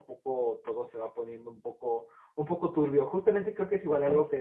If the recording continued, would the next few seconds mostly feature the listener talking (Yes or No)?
No